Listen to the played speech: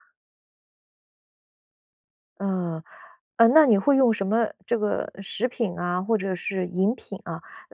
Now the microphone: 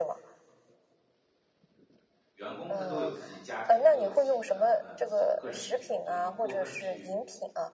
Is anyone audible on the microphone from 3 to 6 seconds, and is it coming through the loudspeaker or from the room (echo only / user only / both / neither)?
both